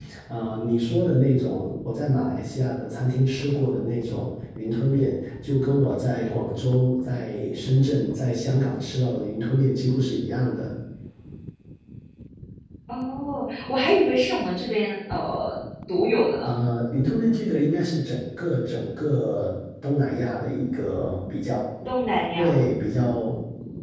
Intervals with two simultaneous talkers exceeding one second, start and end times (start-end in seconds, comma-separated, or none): none